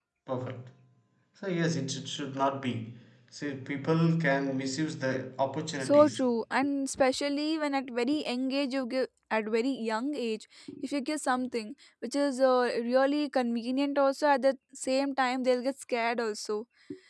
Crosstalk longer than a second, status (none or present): none